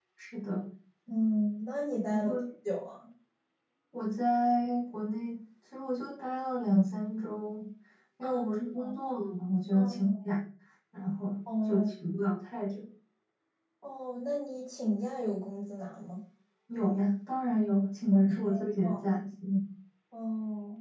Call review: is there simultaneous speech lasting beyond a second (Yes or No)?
No